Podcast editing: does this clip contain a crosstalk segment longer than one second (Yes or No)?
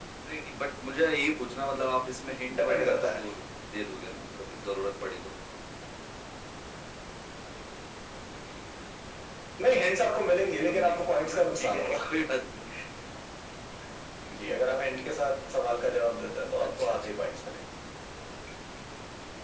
Yes